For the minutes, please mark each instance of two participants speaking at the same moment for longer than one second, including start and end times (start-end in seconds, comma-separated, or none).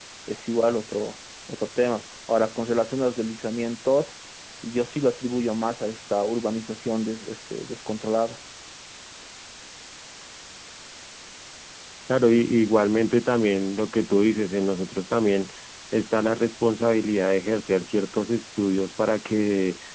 none